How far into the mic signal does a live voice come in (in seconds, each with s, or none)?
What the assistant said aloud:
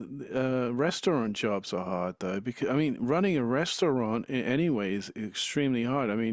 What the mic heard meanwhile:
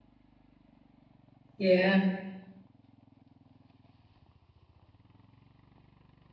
1.6 s